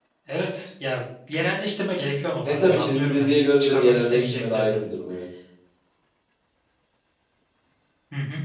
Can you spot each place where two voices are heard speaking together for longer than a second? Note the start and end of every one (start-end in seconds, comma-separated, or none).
2.4-4.8